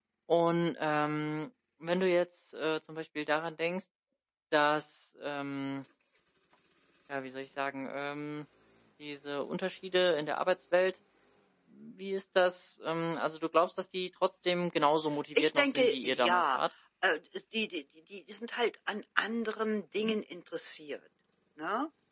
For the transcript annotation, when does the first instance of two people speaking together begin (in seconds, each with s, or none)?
15.4 s